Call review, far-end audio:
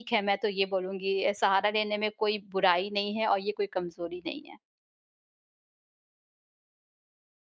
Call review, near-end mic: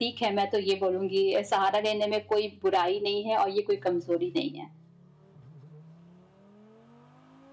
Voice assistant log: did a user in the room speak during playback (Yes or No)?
No